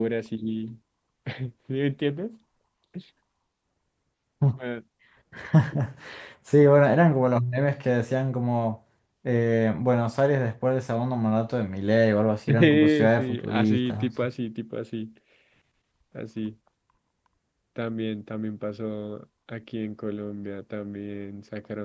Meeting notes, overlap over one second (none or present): present